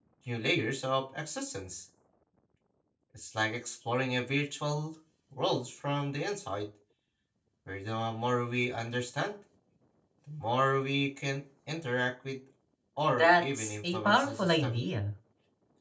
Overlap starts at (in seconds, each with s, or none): 13.2 s